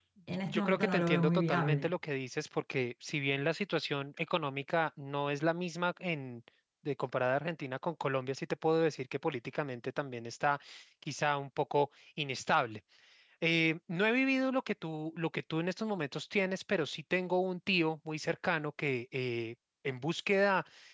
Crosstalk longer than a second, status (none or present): present